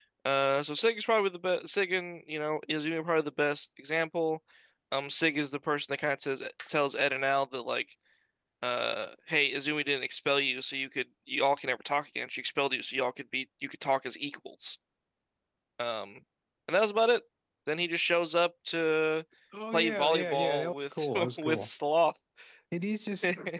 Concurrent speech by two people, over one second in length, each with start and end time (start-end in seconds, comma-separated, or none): 19.7-21.7